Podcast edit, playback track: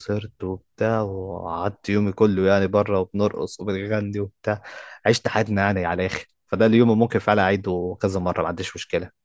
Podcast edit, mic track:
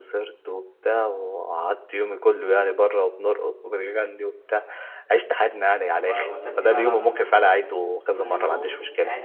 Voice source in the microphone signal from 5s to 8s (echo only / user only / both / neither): both